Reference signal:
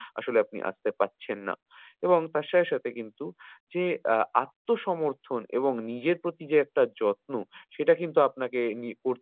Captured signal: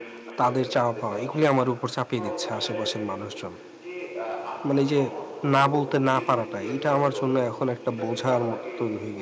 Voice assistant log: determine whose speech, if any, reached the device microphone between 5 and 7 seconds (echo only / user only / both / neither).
both